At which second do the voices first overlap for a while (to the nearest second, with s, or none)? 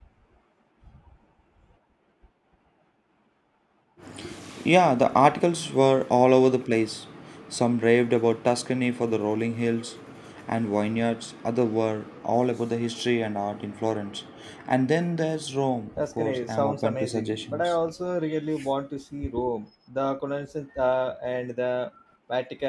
16 s